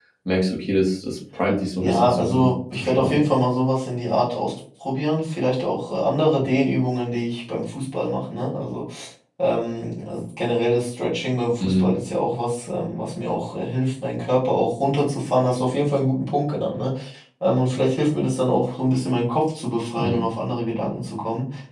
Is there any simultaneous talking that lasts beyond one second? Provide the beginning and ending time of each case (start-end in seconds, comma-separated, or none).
1.8-3.2